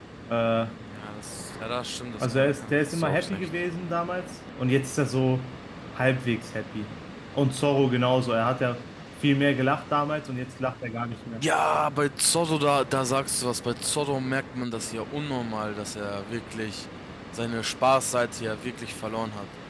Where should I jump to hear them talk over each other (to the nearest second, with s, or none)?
2 s